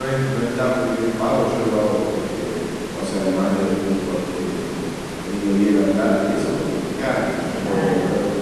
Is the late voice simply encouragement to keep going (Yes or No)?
Yes